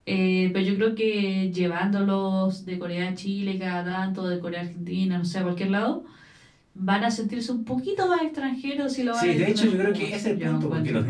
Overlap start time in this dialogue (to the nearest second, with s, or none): 9 s